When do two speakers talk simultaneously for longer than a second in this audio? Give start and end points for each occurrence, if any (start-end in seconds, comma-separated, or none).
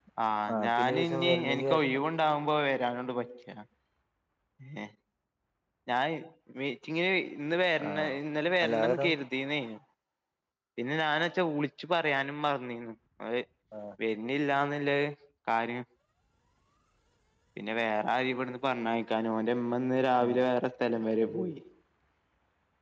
0.7-2.0